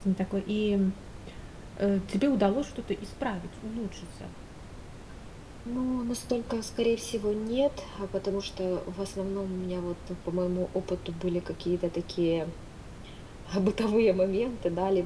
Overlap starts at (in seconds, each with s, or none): none